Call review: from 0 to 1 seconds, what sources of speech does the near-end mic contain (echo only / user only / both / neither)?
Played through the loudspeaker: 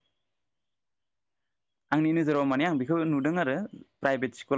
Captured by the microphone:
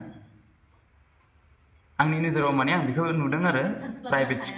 neither